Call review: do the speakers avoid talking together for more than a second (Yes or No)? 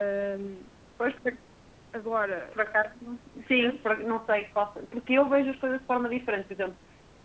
Yes